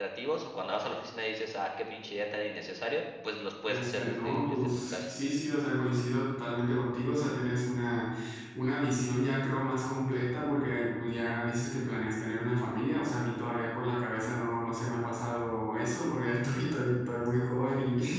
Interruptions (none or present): present